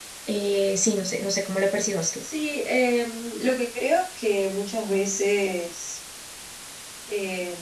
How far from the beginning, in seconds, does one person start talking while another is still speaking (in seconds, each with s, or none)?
none